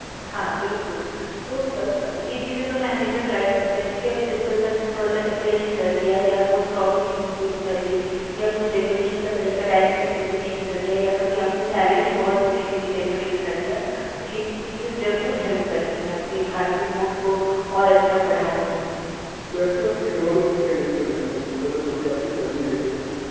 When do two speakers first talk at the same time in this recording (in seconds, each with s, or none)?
none